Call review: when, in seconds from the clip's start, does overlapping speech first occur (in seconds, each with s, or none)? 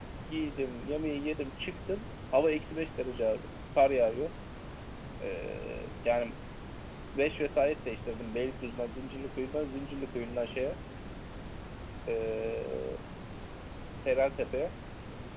none